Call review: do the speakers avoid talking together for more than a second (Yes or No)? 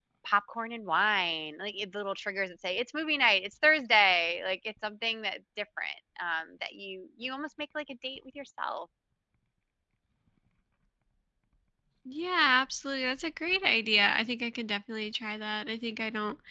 Yes